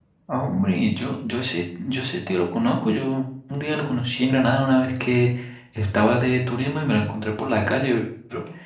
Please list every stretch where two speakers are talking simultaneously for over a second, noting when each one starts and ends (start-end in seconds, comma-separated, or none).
none